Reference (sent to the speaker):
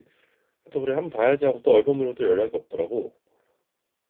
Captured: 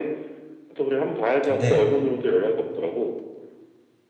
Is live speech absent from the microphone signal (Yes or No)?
No